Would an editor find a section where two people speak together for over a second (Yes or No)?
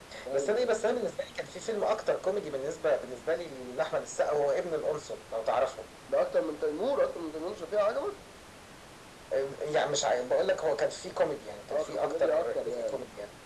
Yes